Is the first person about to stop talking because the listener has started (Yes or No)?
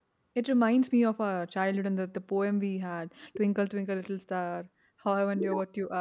No